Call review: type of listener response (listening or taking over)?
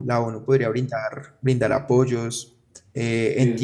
listening